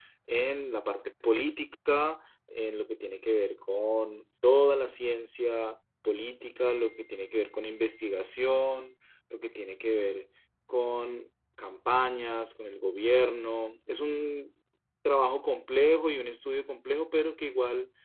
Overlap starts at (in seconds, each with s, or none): none